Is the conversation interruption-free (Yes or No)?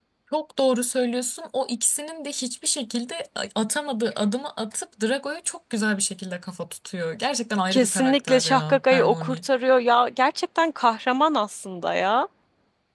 No